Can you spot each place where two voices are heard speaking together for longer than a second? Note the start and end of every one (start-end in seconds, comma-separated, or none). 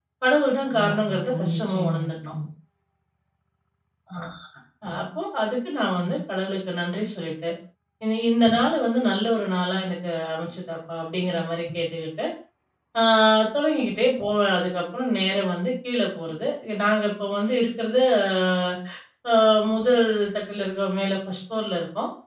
0.8-2.1